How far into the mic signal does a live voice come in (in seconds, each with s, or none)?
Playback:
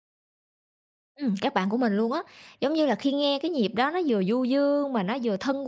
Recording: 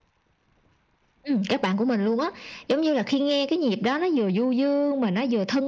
none